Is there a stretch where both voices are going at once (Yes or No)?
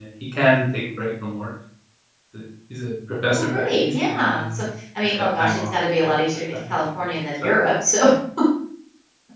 Yes